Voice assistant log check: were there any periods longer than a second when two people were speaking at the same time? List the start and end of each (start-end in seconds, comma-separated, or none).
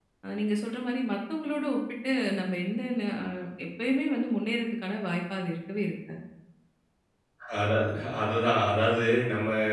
none